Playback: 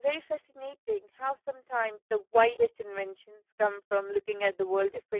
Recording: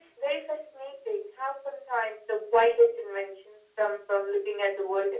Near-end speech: none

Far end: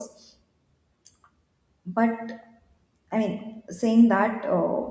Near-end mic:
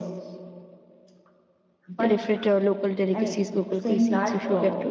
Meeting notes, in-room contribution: present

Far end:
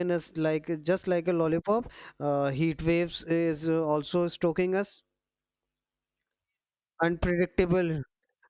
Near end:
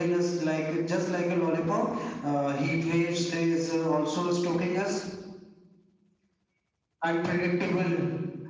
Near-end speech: none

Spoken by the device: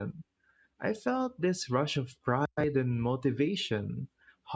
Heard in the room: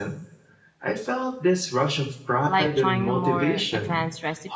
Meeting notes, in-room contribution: present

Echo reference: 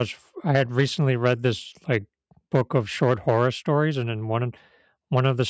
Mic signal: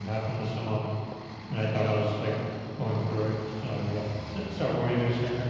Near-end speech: present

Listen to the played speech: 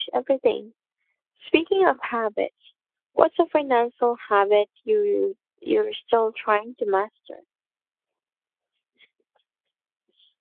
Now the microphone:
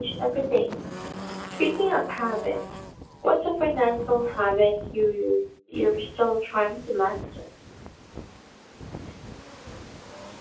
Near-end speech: none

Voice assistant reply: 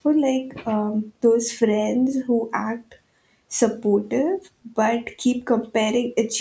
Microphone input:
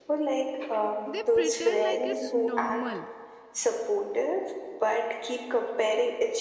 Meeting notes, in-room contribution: present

